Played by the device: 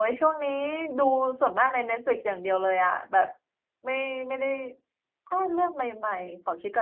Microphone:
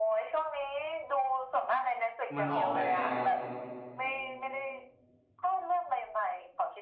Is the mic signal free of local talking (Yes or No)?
No